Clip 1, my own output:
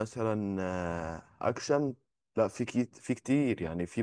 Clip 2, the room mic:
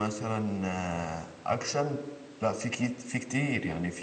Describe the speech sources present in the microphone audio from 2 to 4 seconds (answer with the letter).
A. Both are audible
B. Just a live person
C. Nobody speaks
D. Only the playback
D